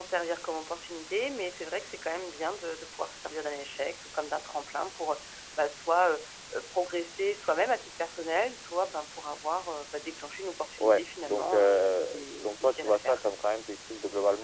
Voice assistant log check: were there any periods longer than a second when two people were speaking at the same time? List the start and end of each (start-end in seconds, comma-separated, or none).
10.8-13.2